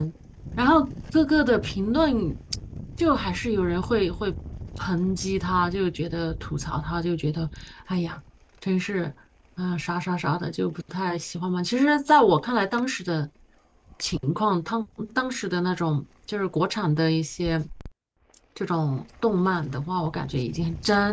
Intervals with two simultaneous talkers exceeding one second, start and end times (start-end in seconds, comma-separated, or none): none